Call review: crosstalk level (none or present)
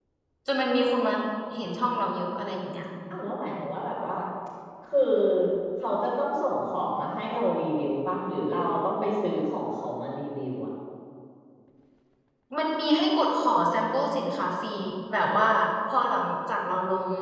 none